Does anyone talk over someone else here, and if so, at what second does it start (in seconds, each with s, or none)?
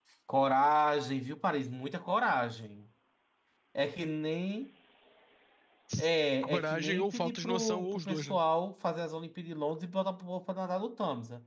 6.4 s